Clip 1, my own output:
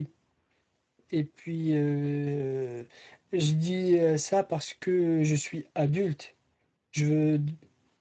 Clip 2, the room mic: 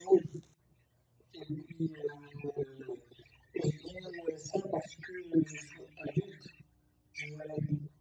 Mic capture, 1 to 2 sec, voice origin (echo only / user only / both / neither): echo only